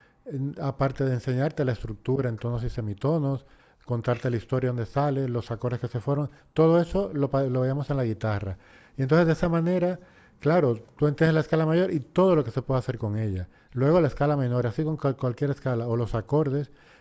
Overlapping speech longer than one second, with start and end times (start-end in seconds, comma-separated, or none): none